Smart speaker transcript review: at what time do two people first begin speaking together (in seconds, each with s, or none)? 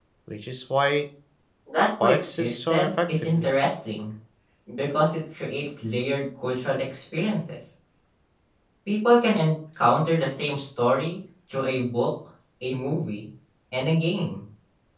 2.0 s